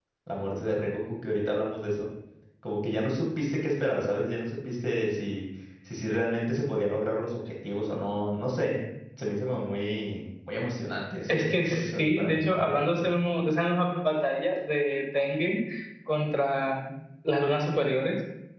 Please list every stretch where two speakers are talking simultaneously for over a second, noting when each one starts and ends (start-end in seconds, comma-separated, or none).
11.3-13.1